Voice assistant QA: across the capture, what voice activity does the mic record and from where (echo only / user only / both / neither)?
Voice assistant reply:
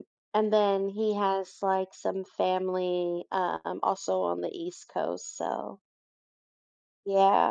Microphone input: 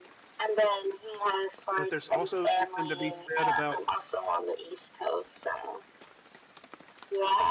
both